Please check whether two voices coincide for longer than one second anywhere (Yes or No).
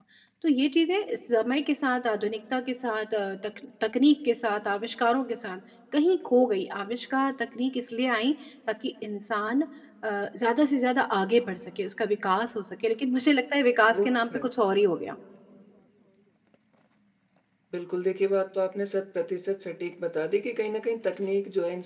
No